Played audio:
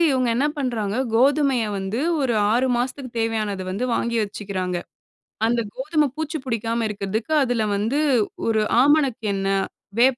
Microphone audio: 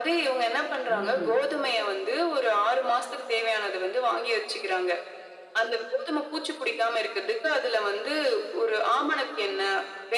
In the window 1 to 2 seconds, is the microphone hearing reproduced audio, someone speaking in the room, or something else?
both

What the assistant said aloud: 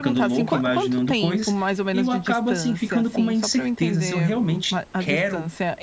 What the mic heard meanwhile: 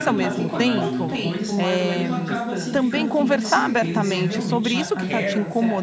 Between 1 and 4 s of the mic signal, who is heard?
both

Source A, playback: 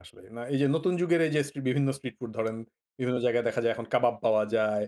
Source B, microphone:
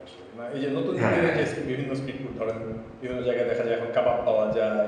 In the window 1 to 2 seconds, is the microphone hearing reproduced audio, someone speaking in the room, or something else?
both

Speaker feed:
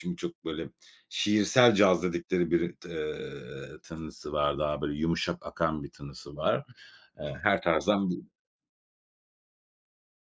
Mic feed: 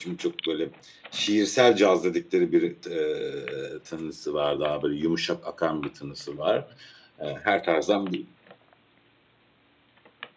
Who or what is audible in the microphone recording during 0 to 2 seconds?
echo only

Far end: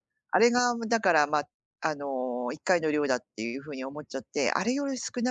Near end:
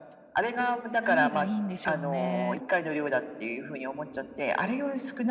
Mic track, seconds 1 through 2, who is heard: both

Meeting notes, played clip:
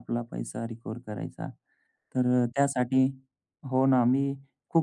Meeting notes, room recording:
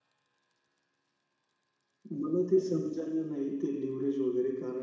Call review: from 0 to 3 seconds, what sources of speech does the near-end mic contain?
user only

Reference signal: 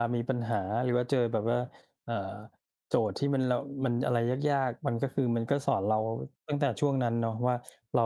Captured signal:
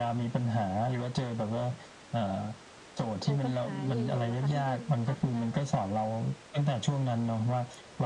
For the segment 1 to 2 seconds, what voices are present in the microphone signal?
echo only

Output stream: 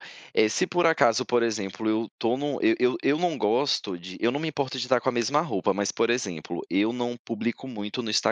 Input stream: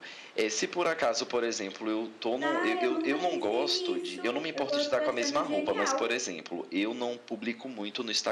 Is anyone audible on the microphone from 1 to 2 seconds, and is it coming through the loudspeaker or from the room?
echo only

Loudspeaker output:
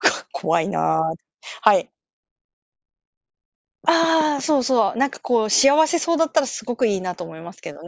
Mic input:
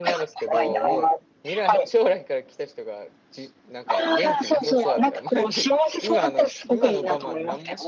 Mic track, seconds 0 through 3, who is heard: both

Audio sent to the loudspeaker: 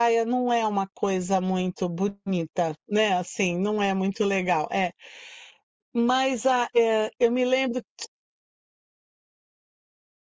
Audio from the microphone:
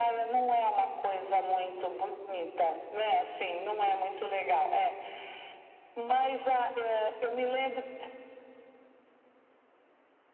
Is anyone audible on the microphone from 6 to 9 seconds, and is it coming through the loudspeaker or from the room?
echo only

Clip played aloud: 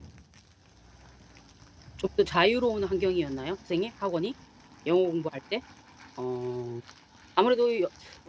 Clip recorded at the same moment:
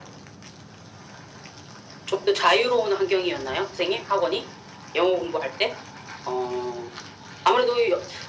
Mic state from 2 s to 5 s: echo only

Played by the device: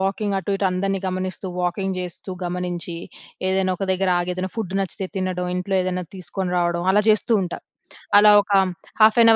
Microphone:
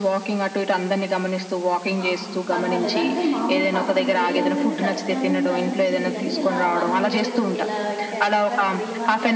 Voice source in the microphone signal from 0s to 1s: echo only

